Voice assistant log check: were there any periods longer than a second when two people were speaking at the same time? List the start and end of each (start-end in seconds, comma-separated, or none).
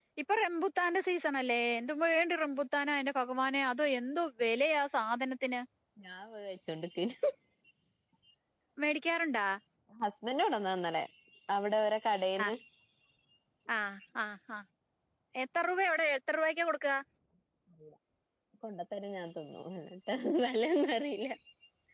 none